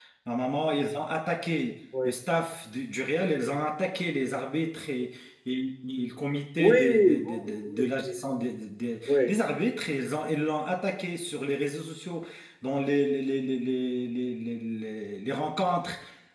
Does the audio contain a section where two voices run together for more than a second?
Yes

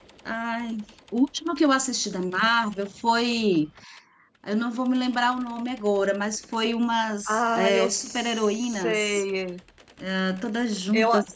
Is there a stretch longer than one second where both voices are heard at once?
Yes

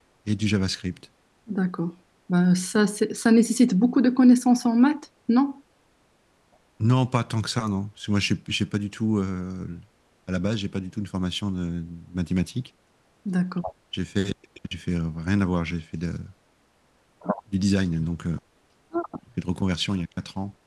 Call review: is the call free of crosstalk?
Yes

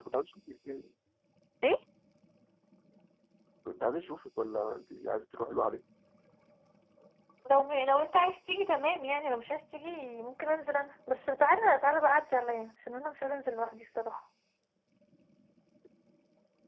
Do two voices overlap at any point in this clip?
No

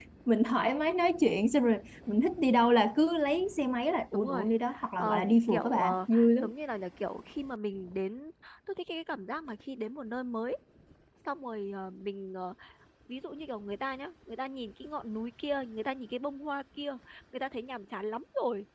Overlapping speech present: Yes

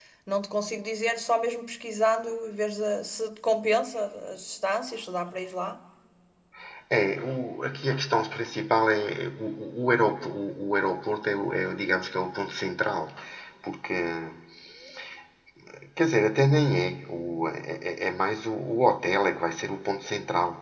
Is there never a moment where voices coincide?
Yes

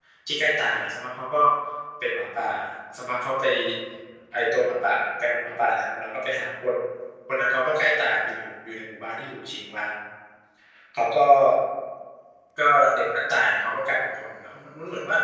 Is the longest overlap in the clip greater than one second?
No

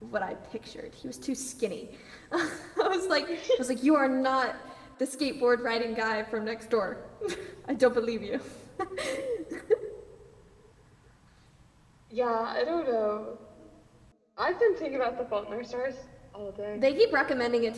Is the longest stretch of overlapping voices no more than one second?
Yes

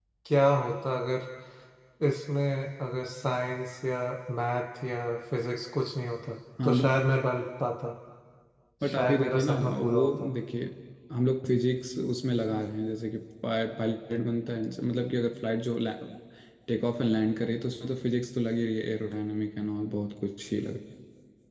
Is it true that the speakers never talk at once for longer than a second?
No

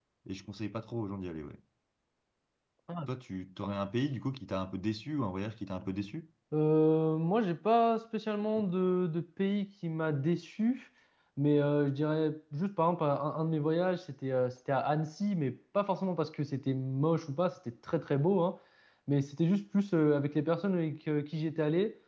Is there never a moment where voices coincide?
Yes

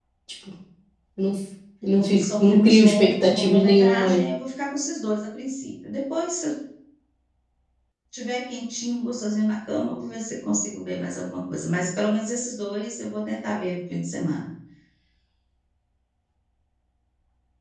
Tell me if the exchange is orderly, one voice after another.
No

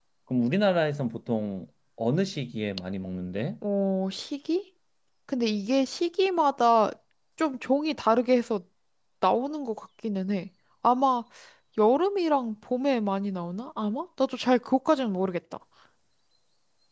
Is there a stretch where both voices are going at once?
No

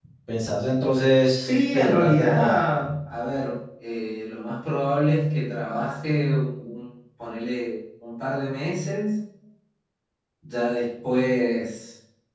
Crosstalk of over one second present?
Yes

